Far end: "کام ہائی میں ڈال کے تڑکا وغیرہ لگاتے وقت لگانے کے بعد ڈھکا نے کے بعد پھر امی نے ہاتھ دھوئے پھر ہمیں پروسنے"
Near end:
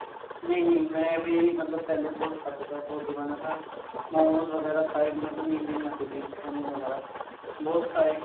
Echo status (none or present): none